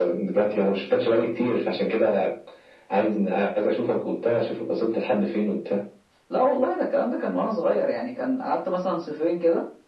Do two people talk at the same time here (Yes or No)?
No